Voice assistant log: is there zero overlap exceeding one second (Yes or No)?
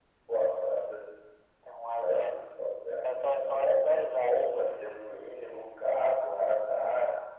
No